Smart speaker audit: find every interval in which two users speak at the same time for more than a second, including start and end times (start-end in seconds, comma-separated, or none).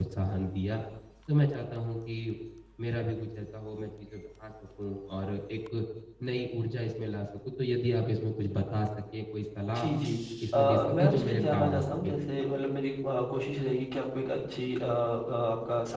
10.5-12.2